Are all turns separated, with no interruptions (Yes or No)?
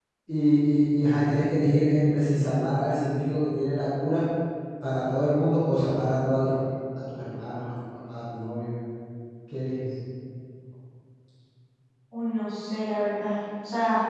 Yes